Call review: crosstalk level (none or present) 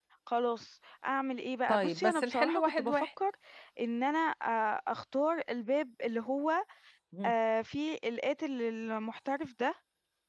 present